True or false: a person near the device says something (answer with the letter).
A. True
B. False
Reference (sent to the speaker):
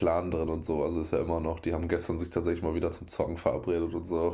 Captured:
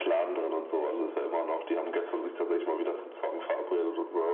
B